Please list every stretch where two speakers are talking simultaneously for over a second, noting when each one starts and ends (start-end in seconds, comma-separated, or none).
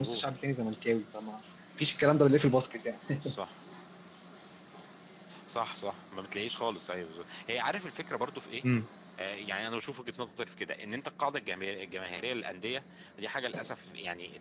none